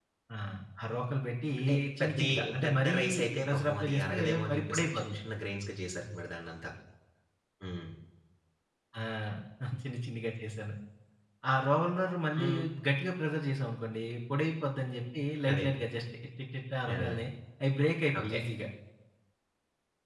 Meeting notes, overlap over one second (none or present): present